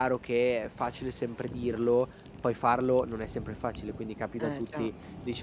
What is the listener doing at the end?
listening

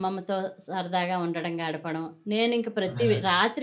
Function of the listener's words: listening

